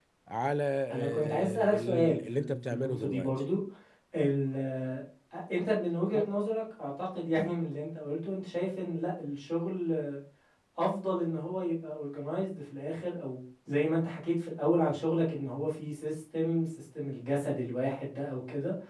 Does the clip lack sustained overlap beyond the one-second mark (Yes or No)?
No